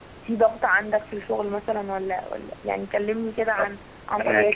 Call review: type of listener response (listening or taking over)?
taking over